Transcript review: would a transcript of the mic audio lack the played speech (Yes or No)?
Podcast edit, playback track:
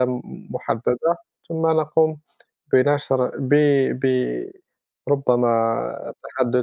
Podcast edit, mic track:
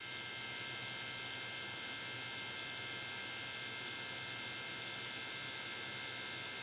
Yes